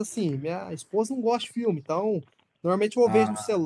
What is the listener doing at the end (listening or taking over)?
listening